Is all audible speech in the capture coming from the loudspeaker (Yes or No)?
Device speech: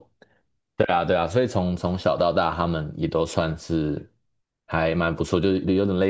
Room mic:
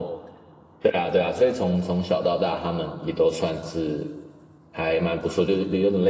Yes